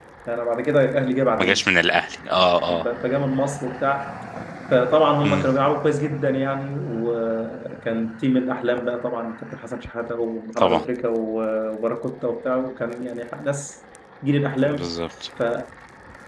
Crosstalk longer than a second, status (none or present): none